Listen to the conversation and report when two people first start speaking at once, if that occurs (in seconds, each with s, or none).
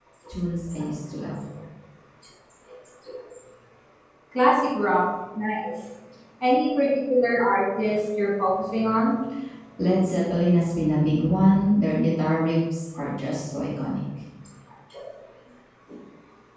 none